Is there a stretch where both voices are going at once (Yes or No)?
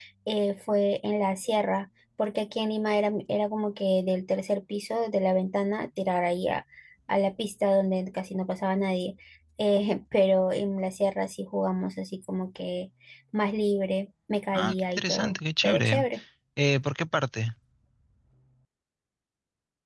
Yes